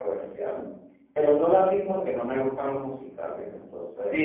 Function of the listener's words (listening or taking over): taking over